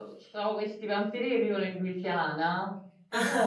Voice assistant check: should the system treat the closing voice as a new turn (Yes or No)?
No